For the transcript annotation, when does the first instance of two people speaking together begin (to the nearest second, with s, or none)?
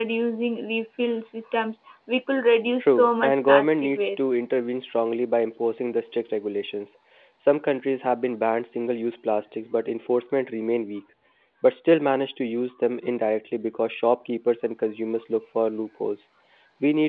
3 s